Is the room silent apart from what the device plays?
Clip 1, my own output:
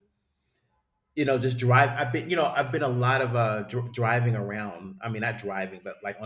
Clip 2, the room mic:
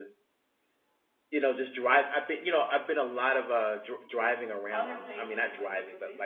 No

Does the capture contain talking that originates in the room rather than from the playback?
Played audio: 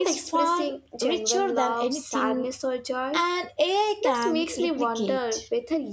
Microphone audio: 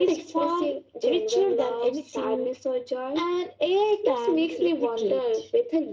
No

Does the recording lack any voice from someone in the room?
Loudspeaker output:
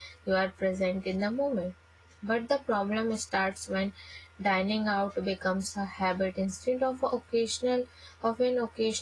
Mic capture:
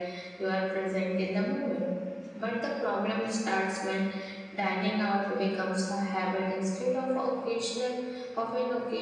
Yes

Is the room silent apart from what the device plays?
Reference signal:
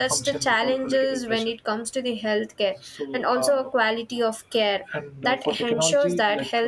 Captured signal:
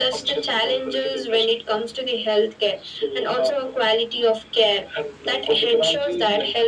Yes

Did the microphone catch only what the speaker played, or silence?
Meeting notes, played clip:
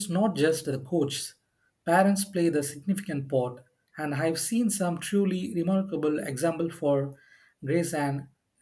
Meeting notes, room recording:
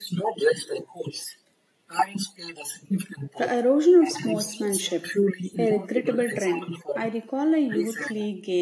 No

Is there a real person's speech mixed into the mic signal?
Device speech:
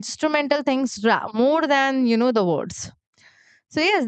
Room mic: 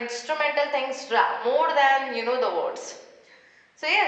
No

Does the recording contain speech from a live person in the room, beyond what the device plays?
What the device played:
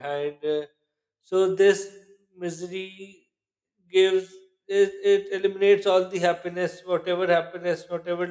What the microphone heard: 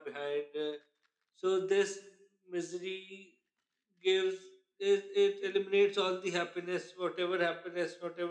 No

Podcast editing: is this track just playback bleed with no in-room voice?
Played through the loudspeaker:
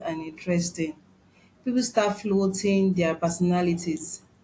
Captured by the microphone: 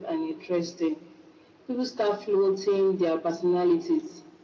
Yes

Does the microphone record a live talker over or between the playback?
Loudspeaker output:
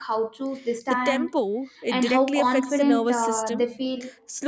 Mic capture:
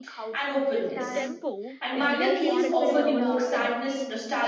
Yes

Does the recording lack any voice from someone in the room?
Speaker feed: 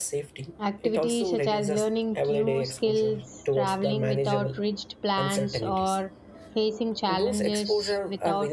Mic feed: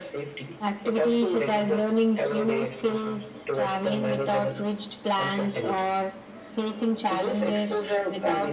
Yes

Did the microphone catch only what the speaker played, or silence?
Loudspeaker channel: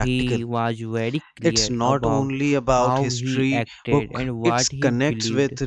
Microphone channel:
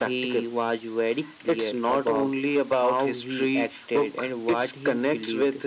Yes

